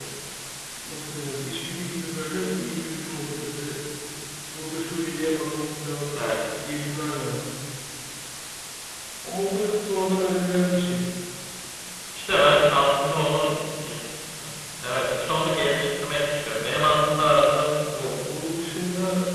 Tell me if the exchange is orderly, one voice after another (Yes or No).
Yes